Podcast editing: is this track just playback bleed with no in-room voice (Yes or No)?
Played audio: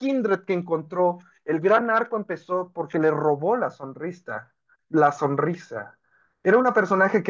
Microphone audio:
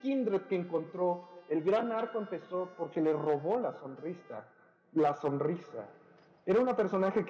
Yes